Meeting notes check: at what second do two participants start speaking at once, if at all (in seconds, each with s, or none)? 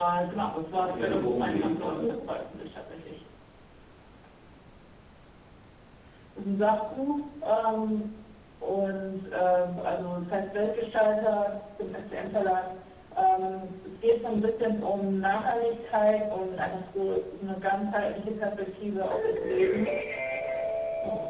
0.7 s